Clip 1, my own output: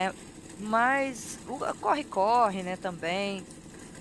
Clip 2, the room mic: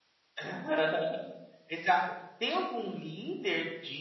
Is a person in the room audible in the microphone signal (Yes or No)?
Yes